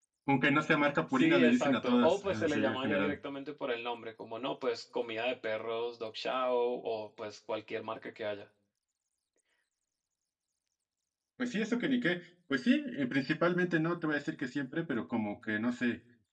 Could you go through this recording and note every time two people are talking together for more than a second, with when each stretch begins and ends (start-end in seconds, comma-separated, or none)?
1.1-3.2